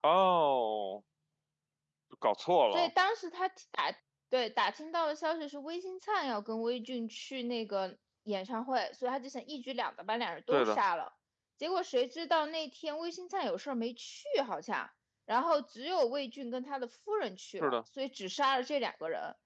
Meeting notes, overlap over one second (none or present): none